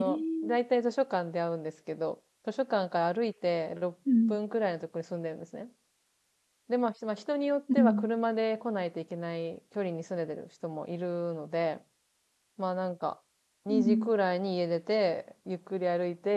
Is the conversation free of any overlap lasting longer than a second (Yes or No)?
Yes